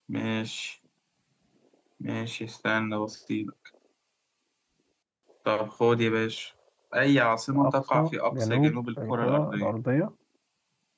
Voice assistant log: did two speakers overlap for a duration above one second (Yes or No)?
Yes